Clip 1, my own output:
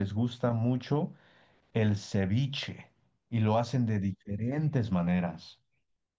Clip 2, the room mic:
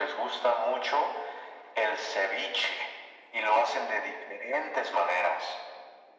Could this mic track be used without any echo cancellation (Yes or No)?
No